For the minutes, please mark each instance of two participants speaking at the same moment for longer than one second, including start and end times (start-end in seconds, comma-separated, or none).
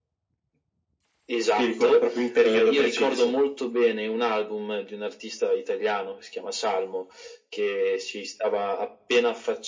1.6-3.4